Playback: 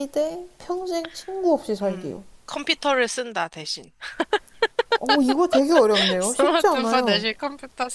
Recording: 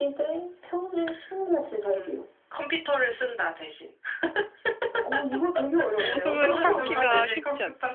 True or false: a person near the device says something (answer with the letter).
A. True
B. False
A